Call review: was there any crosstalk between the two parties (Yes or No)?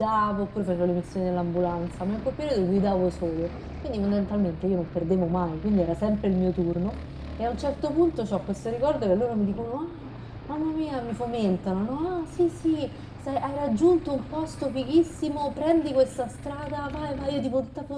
No